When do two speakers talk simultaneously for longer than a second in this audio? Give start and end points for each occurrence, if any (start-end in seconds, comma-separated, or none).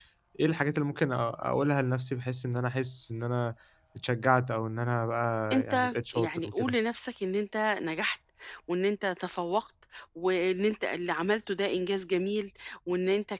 5.5-6.8